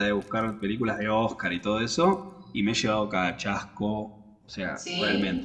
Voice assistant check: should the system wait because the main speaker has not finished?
Yes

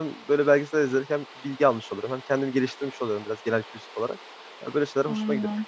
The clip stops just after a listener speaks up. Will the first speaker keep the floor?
Yes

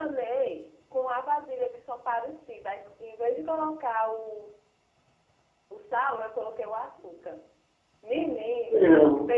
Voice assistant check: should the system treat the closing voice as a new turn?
No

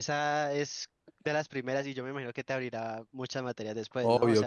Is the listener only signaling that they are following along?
No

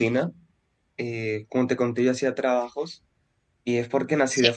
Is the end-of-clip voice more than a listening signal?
No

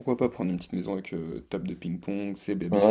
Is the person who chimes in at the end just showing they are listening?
No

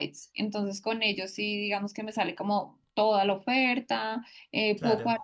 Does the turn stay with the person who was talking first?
Yes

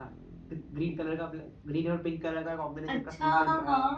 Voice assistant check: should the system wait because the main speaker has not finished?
No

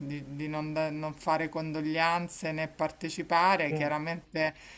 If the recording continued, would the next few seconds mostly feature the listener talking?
No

